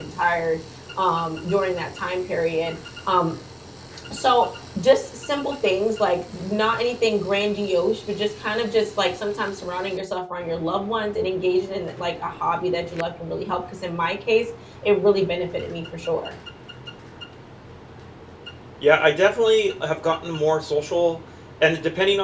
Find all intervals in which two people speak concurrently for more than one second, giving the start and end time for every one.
none

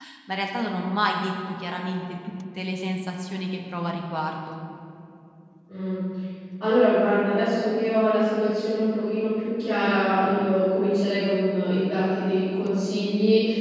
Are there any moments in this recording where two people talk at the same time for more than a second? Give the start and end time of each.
none

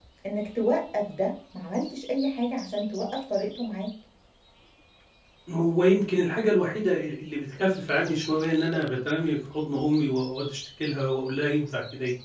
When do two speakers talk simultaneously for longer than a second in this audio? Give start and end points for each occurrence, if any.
none

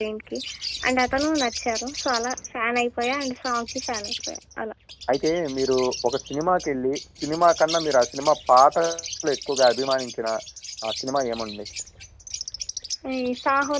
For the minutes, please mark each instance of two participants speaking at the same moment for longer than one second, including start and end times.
none

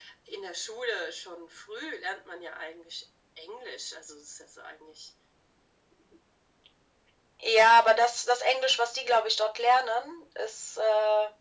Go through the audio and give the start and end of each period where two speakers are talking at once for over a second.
none

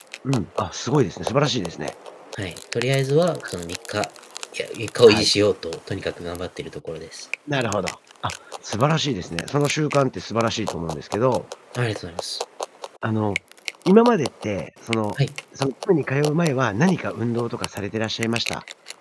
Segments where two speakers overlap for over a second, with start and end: none

